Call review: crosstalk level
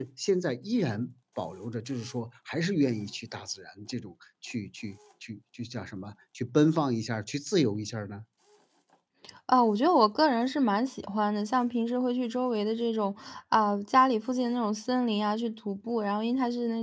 none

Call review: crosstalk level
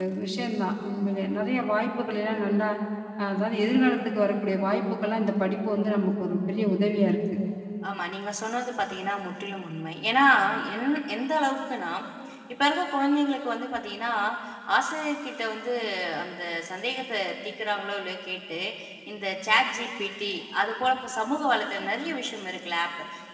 none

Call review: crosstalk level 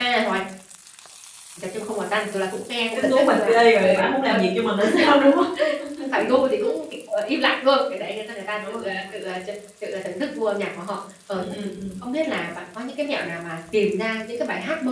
present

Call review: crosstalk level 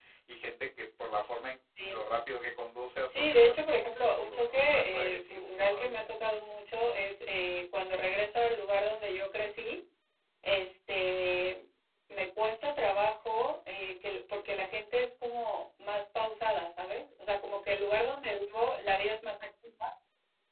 present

